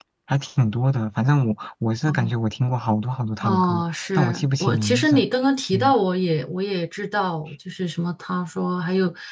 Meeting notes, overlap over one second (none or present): present